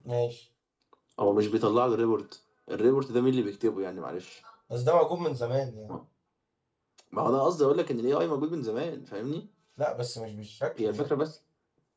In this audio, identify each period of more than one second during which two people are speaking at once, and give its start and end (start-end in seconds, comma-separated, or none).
none